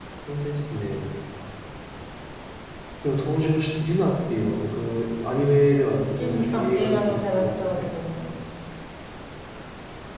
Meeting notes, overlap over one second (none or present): present